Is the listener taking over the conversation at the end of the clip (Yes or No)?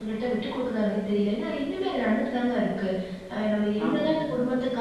No